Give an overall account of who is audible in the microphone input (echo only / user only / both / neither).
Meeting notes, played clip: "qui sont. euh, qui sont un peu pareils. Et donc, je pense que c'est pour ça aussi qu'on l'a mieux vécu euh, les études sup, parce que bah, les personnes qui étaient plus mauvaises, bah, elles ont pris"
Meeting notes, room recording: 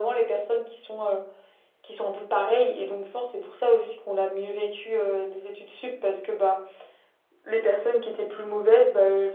echo only